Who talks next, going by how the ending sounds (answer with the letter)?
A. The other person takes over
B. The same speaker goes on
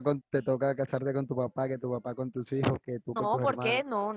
A